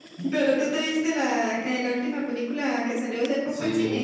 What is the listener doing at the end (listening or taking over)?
taking over